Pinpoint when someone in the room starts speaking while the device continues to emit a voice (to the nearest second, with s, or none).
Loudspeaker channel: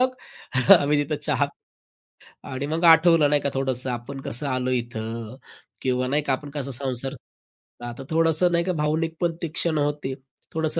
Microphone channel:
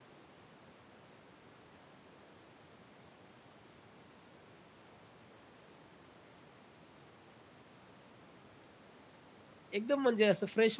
10 s